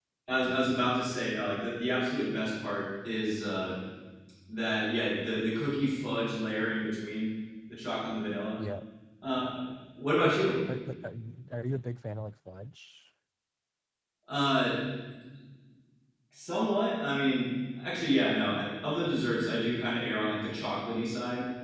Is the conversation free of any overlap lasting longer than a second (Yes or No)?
Yes